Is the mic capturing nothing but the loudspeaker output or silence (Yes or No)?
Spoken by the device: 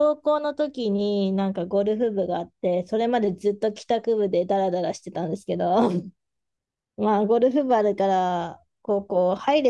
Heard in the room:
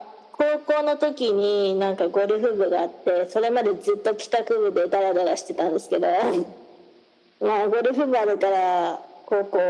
Yes